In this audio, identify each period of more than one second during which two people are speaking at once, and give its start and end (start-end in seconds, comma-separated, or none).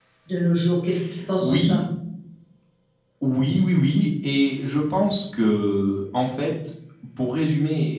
none